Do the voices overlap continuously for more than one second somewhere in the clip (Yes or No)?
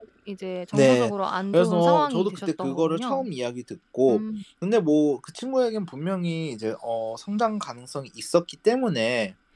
Yes